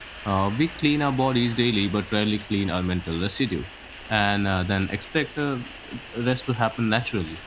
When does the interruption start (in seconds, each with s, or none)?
none